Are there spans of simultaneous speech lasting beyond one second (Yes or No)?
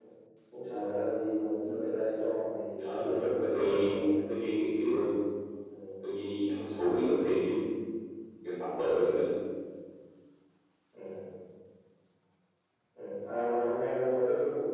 Yes